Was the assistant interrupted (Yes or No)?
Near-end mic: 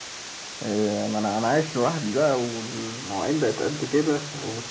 No